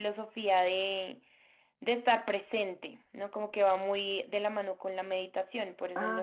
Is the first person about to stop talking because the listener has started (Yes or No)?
Yes